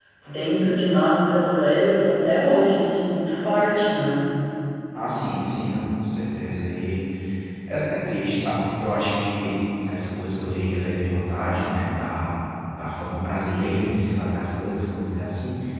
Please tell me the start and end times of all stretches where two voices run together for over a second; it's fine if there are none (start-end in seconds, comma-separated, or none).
none